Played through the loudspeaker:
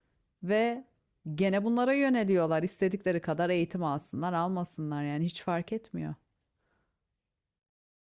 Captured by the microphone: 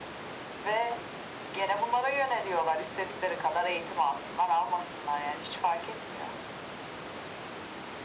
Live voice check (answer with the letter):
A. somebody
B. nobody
B